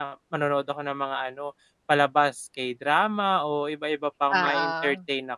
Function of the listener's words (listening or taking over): listening